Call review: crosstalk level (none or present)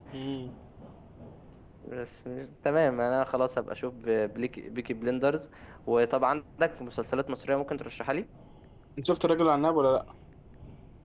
none